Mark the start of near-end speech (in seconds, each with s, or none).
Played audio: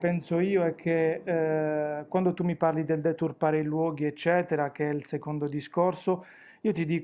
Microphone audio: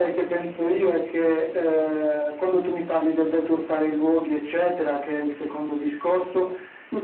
none